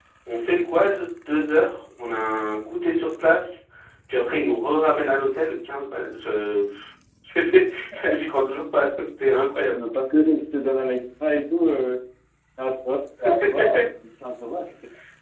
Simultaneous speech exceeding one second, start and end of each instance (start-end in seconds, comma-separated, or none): none